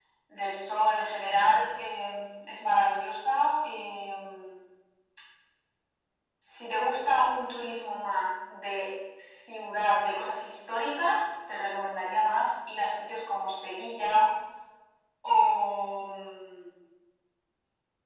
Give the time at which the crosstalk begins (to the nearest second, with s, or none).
none